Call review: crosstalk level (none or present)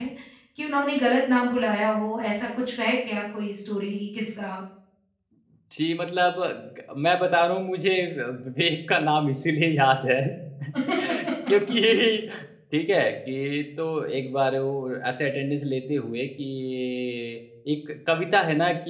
none